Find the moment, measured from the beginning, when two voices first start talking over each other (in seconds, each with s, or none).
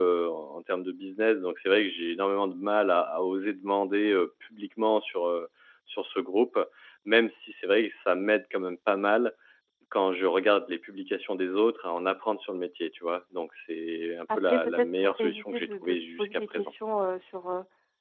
14.3 s